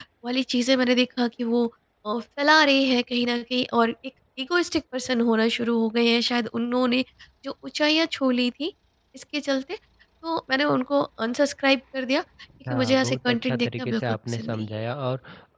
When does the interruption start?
12.7 s

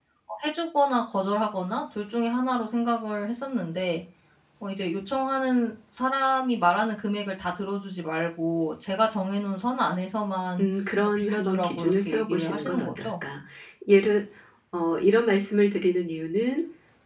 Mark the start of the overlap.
11.2 s

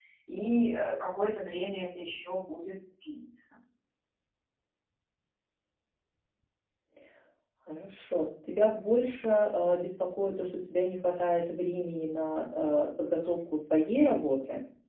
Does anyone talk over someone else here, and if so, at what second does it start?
none

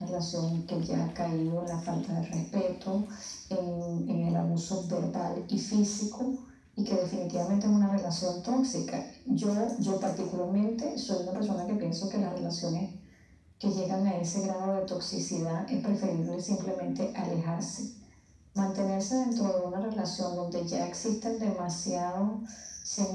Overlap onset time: none

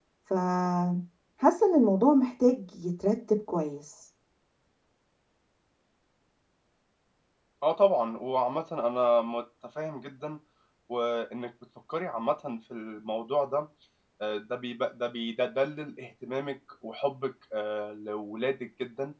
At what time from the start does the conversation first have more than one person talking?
none

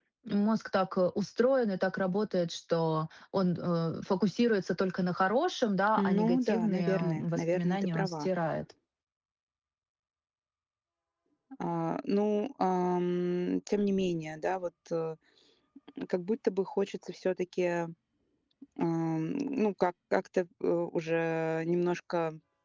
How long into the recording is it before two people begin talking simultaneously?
6.0 s

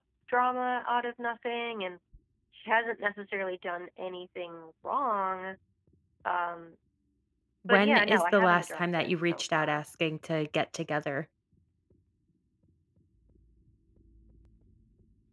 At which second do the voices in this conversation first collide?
7.7 s

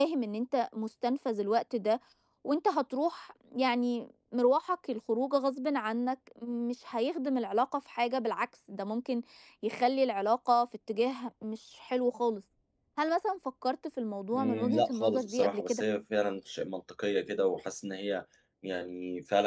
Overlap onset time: 14.3 s

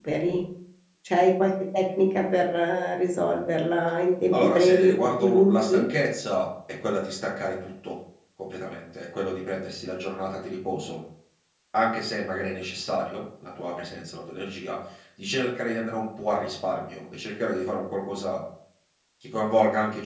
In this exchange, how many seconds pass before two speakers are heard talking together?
4.3 s

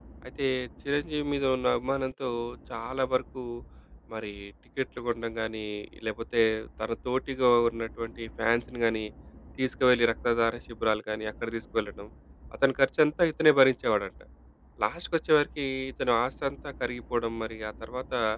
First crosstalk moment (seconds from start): none

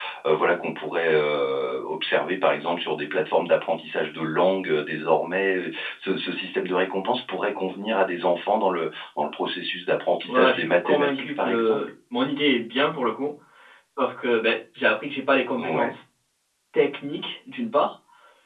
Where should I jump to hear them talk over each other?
10.2 s

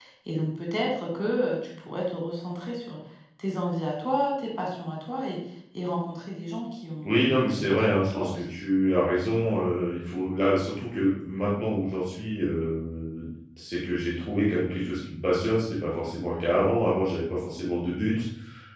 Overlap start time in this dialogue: 7.0 s

